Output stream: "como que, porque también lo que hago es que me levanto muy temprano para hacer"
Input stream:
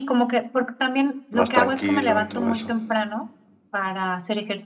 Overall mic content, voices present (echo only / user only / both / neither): both